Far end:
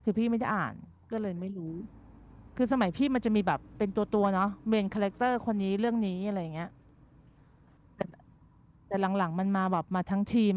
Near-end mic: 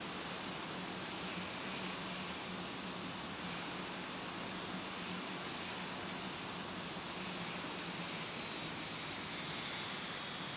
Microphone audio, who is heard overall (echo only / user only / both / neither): neither